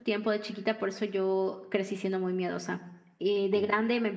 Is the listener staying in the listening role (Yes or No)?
Yes